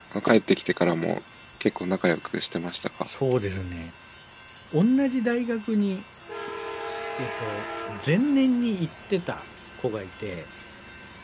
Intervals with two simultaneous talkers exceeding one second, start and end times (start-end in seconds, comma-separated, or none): none